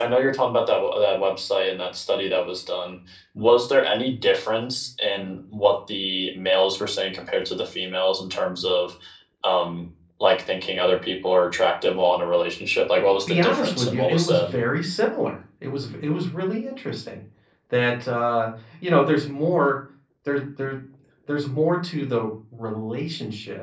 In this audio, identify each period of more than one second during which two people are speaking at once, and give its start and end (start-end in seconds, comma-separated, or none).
13.2-14.6